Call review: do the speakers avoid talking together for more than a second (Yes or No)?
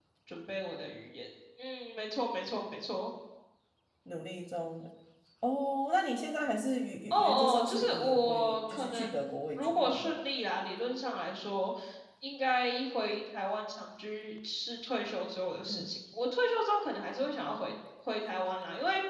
No